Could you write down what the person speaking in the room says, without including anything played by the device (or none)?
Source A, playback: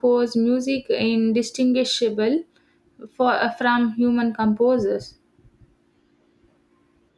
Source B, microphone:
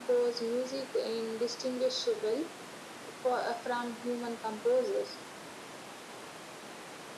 none